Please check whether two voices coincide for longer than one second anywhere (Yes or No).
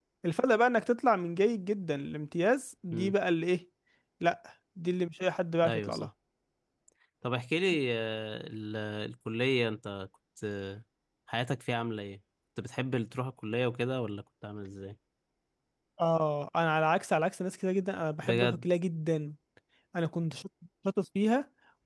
No